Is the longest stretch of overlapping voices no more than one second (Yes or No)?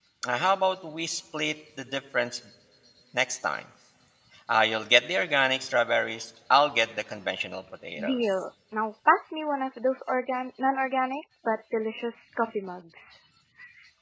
Yes